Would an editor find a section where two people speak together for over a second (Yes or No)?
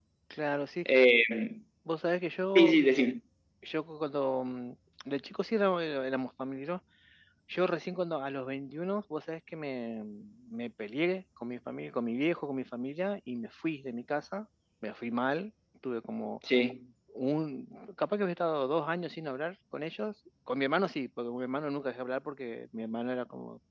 No